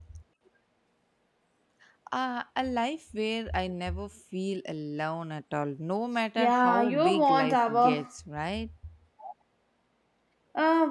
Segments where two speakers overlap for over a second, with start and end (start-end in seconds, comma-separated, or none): 6.4-8.0